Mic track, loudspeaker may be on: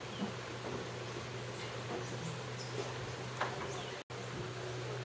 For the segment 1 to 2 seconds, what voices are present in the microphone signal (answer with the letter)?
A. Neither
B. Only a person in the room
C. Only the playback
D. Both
A